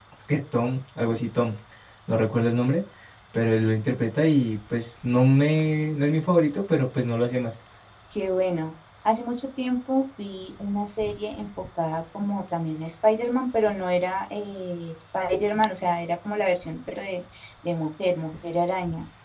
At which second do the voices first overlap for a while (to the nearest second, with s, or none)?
none